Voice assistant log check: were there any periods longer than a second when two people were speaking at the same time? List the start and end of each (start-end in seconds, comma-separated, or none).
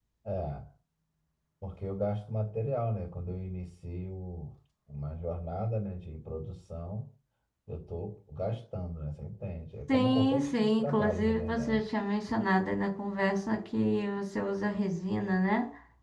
9.9-11.8